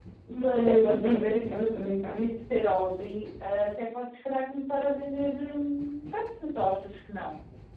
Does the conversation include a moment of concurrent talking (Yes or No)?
Yes